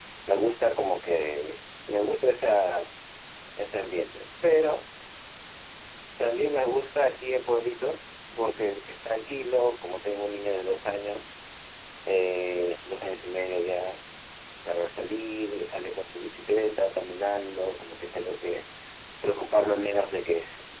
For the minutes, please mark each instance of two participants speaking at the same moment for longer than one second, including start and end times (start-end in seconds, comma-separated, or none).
none